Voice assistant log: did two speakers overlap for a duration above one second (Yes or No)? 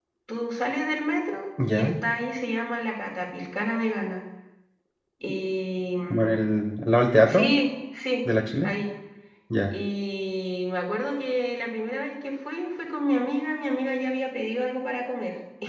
No